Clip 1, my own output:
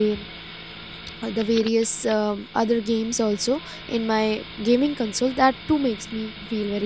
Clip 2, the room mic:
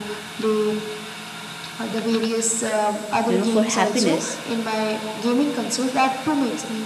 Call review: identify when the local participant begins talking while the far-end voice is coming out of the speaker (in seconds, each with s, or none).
3.2 s